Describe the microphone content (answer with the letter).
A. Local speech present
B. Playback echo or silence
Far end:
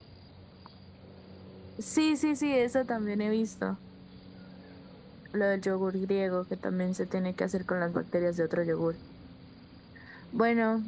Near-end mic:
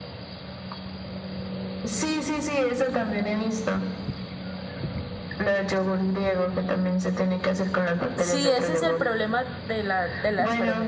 A